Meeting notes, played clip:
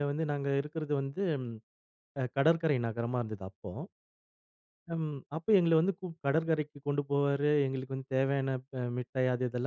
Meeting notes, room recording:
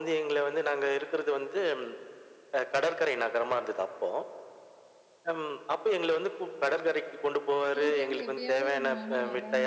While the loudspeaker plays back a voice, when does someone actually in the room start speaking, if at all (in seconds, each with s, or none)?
7.8 s